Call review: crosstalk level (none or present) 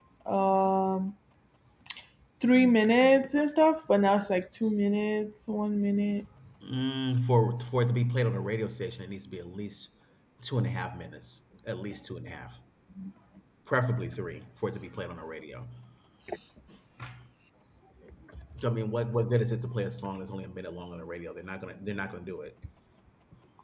none